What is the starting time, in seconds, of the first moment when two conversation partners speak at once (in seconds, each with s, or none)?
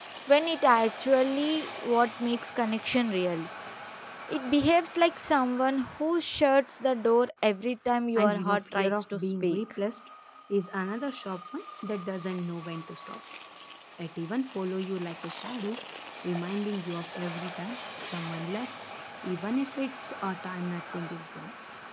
8.2 s